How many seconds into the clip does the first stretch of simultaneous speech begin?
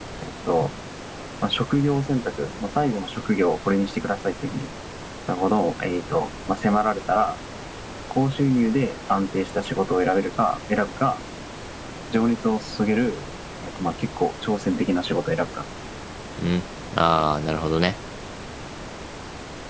none

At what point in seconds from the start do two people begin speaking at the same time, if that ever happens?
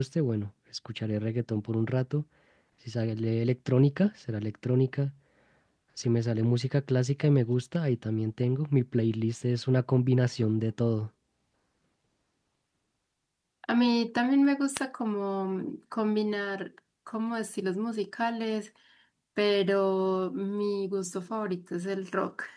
none

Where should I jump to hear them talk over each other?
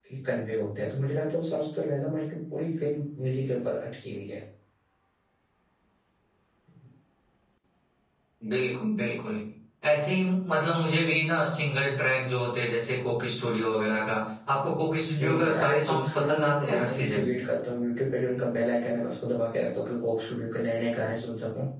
15.2 s

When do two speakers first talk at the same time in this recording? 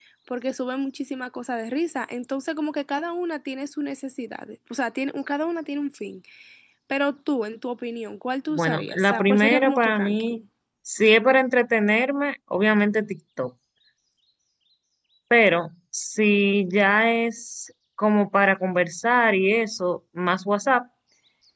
8.5 s

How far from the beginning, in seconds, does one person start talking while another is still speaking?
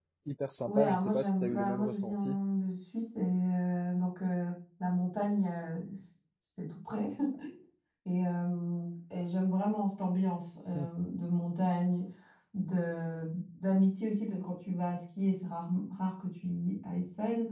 0.7 s

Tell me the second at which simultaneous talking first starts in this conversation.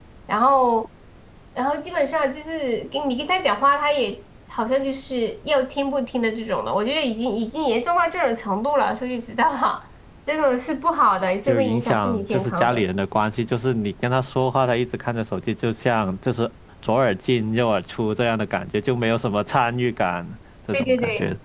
11.5 s

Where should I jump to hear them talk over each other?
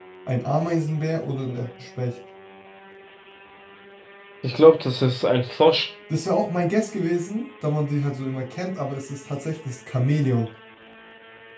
none

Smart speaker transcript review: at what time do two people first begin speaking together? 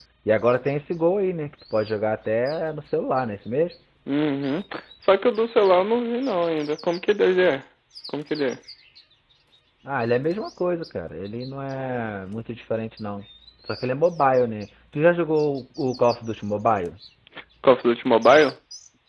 none

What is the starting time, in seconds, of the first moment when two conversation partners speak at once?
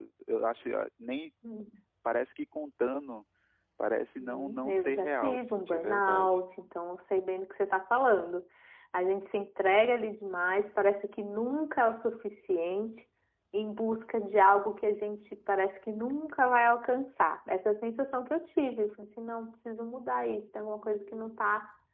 4.2 s

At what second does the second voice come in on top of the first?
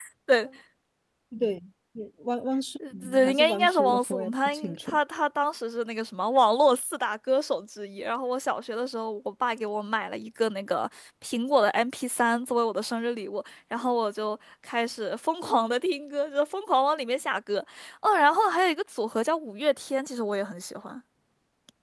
2.8 s

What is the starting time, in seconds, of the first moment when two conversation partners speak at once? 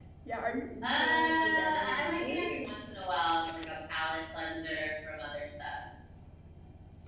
0.8 s

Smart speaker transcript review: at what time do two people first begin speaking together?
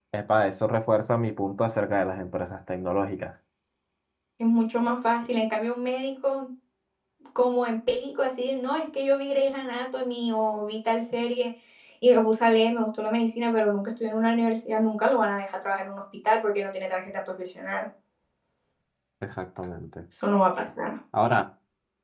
none

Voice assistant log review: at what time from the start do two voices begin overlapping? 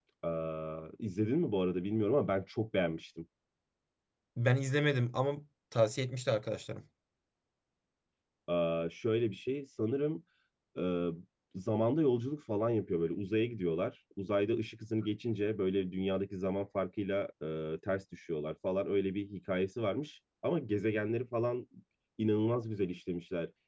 none

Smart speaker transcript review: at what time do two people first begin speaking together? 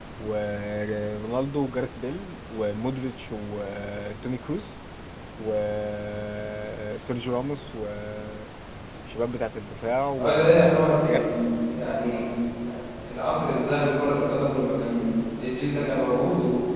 10.2 s

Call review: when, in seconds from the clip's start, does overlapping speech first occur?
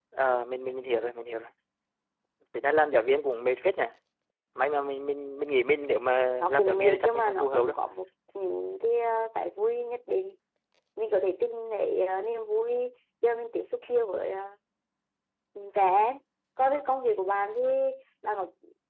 6.4 s

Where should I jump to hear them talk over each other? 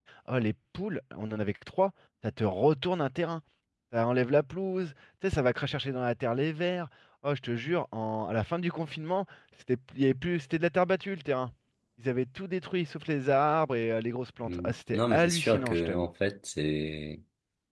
14.4 s

